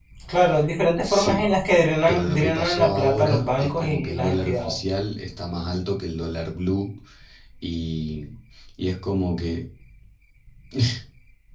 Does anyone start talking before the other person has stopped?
Yes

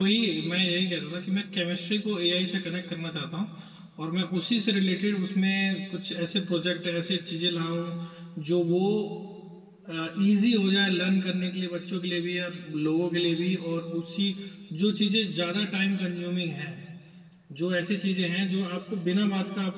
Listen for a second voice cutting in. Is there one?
No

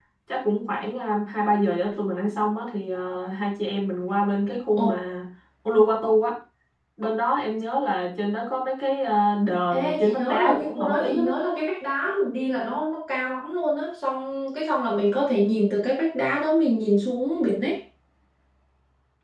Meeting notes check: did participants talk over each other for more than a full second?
Yes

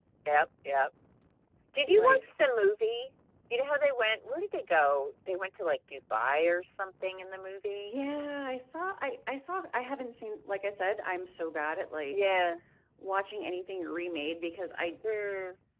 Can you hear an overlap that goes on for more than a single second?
No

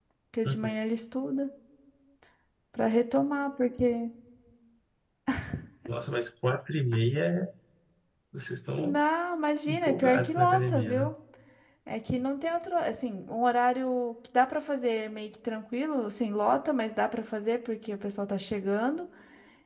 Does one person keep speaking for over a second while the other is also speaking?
Yes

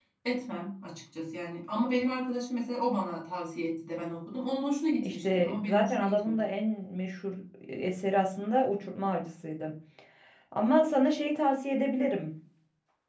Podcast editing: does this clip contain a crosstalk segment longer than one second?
Yes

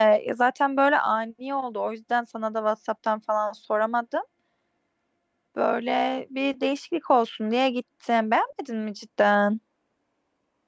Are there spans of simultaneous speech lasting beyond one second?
No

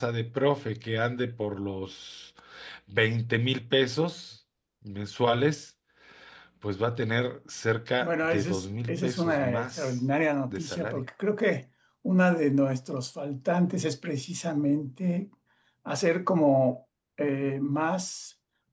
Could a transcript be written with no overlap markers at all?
No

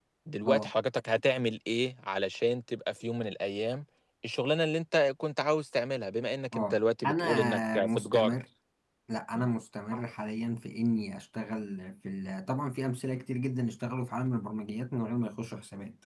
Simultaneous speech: Yes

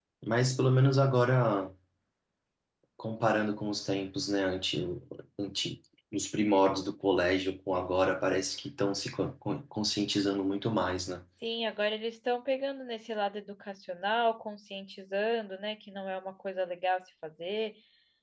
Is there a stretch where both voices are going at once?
No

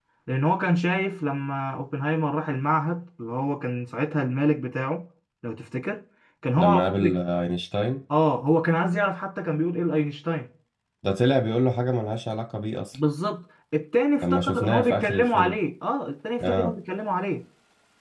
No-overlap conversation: No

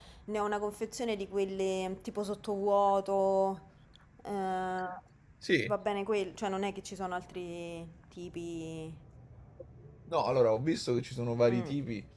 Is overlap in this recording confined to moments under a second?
Yes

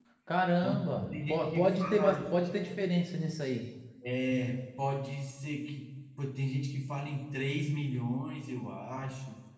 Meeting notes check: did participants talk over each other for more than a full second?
Yes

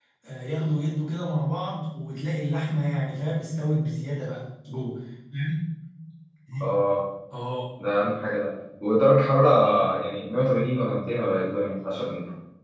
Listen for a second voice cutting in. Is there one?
No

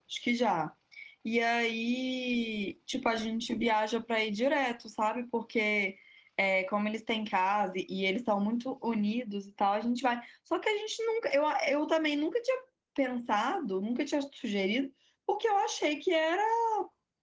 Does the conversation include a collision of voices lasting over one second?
No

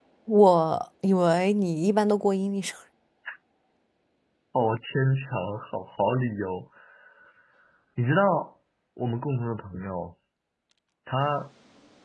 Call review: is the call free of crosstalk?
Yes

